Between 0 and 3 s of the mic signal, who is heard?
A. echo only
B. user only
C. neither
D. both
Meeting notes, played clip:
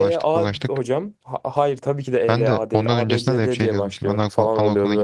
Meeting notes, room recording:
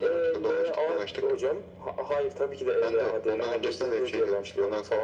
A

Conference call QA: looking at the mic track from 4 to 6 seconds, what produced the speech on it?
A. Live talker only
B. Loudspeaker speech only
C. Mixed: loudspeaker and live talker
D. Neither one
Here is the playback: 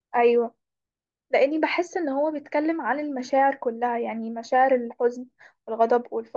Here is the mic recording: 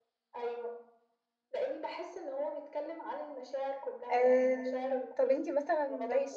C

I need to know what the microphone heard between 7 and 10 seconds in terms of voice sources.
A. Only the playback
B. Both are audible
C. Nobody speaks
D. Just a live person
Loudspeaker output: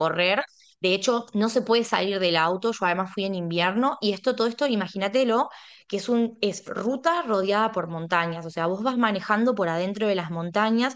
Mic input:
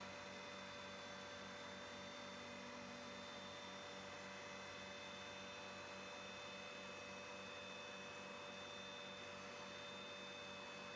C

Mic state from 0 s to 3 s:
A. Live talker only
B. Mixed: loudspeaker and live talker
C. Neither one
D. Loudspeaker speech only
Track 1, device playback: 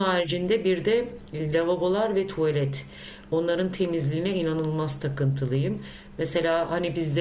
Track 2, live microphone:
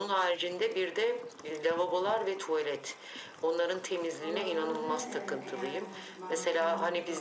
D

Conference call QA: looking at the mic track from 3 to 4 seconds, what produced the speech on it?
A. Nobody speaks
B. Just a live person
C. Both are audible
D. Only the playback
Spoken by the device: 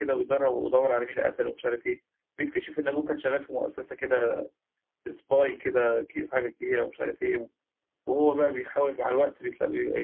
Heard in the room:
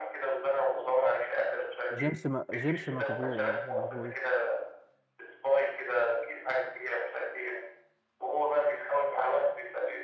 C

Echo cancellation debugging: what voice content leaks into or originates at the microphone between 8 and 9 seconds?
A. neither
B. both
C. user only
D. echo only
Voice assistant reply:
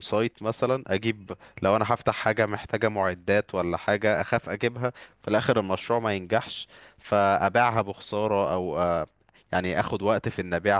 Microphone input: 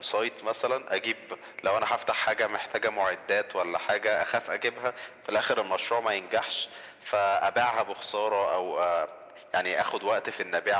D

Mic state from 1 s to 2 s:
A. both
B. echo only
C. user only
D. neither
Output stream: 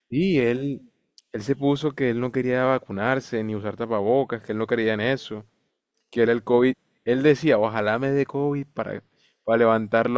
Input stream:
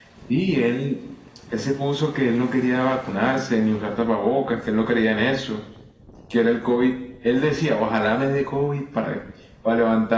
B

